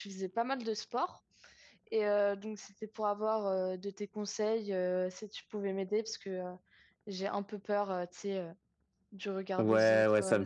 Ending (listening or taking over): taking over